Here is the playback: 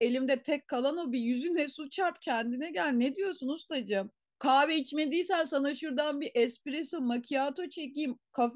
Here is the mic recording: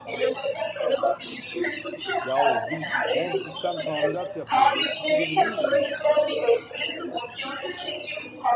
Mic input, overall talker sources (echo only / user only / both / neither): both